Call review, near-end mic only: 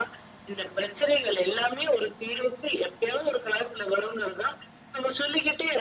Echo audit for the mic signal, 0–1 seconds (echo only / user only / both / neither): echo only